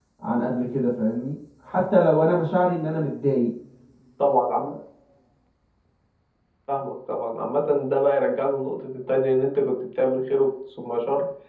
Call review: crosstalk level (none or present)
none